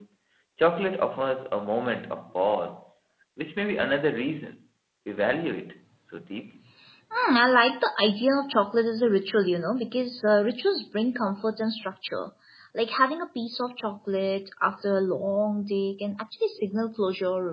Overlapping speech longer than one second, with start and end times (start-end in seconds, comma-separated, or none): none